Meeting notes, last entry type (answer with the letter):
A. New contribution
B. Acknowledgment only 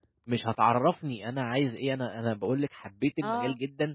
B